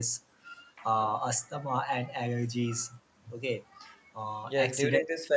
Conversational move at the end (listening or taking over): taking over